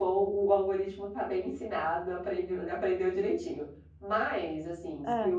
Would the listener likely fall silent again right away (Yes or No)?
Yes